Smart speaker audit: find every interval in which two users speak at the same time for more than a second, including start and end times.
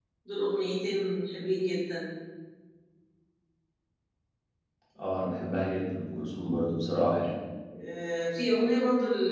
none

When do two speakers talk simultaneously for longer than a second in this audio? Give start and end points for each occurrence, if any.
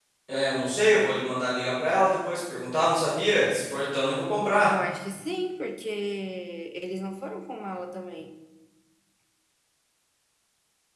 none

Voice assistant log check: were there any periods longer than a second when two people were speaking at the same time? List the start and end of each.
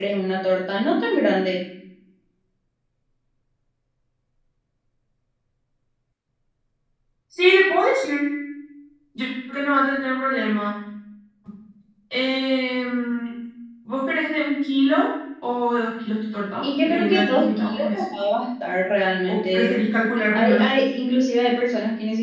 16.6-18.0

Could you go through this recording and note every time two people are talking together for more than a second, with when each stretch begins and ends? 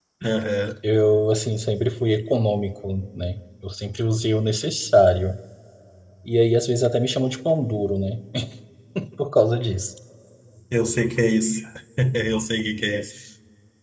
none

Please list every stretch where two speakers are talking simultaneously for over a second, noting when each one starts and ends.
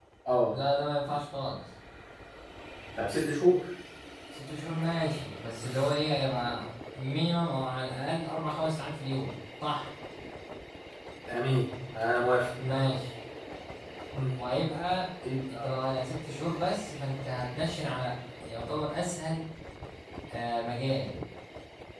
none

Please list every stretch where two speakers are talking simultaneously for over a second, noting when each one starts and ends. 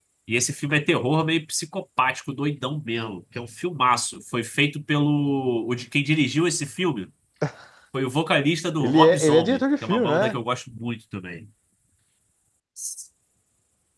8.8-10.4

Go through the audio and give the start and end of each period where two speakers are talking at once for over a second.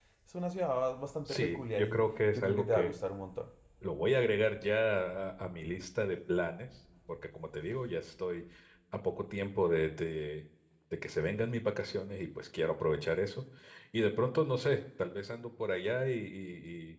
1.3-2.9

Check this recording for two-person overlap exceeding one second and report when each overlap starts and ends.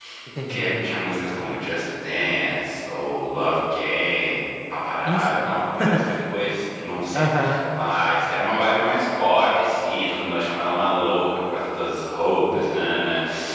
none

